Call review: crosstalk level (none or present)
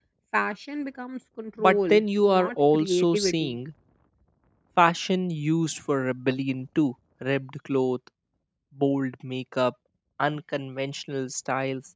present